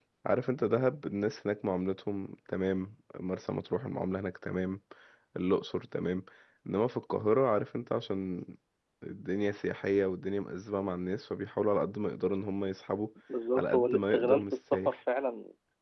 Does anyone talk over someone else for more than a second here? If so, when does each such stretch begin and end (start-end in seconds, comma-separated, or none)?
13.6-14.9